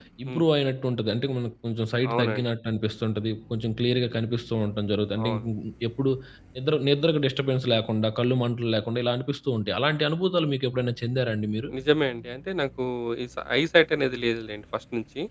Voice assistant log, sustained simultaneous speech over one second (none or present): none